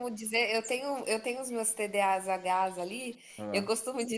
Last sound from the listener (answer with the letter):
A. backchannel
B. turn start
A